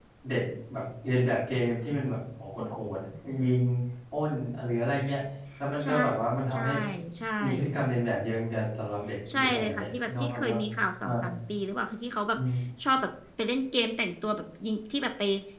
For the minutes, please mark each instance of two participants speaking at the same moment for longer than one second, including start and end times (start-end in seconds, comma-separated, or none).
9.3-10.6